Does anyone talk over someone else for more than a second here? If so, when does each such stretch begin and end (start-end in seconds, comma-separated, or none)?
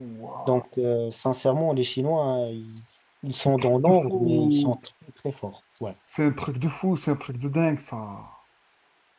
3.4-4.8